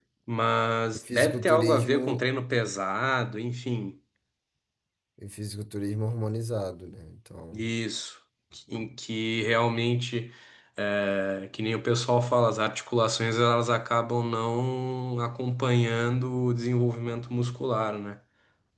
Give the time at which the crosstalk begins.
0.9 s

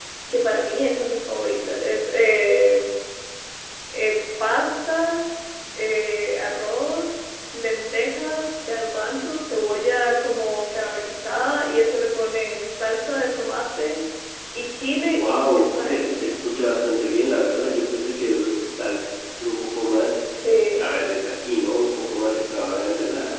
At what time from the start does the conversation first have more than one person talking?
15.1 s

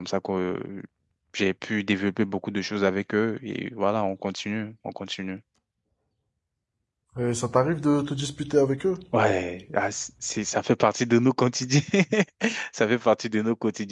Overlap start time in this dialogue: none

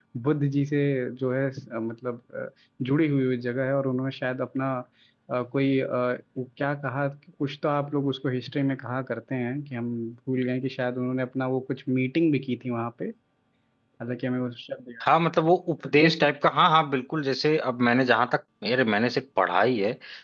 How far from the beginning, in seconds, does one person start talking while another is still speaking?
none

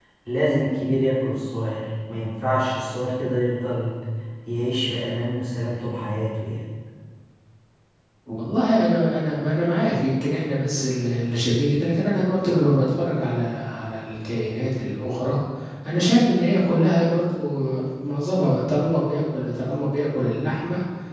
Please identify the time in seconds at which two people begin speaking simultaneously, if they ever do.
none

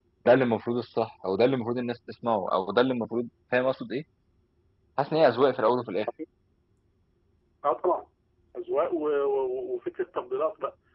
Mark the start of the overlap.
none

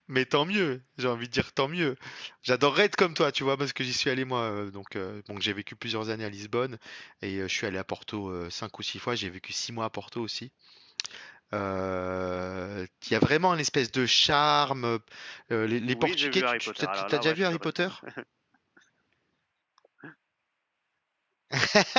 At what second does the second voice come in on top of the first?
15.9 s

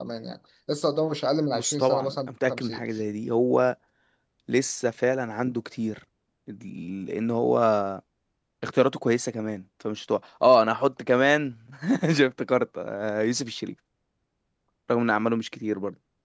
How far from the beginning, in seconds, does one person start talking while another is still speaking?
1.5 s

